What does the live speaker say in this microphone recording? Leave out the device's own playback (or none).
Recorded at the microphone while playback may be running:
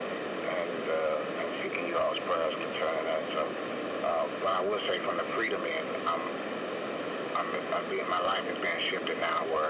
none